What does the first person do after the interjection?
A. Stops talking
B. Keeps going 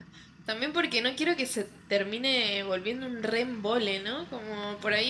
B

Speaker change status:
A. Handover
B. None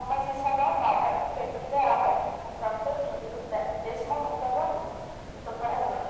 B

